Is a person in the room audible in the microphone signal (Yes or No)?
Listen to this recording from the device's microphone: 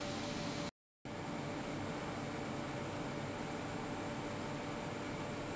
No